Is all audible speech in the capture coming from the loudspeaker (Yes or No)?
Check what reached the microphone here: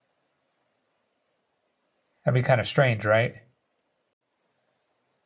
No